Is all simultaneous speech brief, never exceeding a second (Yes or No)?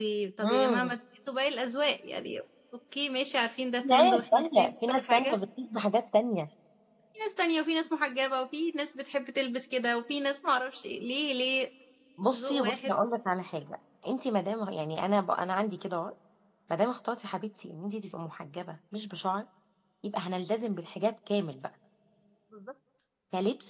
No